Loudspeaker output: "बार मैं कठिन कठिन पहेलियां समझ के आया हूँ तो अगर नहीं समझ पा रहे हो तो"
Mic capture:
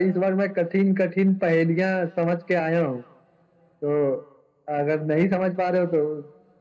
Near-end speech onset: none

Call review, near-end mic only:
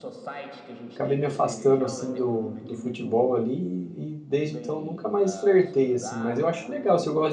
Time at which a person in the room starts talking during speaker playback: 0.9 s

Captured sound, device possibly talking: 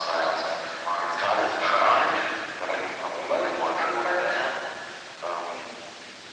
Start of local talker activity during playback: none

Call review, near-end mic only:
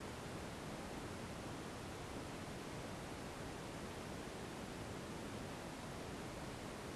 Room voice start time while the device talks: none

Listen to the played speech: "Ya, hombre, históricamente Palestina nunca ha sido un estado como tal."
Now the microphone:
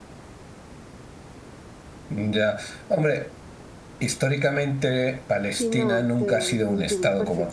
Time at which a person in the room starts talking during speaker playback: 5.6 s

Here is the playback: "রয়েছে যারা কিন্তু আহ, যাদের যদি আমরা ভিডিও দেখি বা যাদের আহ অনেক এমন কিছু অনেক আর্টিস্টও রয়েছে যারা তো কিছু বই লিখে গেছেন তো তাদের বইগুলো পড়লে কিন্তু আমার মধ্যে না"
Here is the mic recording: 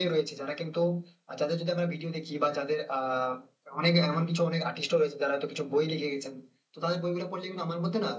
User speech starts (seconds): none

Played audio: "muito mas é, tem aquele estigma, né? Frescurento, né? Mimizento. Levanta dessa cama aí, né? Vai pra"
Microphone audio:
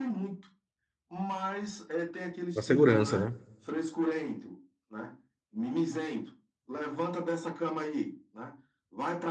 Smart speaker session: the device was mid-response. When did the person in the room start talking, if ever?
2.5 s

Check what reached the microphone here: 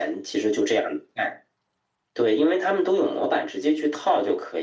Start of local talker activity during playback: none

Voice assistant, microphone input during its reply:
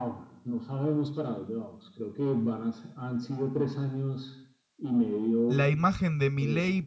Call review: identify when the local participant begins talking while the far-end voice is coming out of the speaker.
5.5 s

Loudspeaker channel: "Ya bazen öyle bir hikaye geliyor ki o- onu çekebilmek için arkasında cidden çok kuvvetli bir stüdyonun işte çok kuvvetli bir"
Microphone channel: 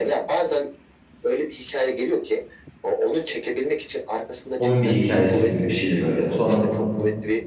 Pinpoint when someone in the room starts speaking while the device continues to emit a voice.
4.6 s

